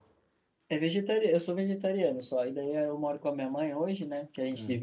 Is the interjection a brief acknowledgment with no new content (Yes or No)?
Yes